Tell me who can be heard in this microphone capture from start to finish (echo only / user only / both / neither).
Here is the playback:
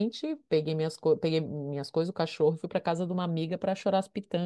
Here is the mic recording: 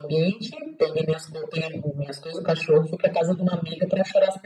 echo only